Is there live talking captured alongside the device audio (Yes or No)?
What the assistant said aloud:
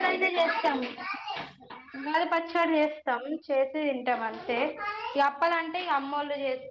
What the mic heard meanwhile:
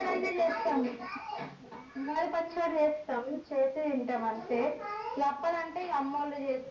No